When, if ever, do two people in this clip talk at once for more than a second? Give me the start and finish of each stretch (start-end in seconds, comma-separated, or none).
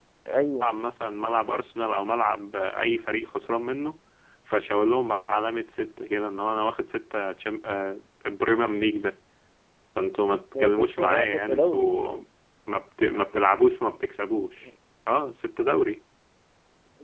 10.6-12.1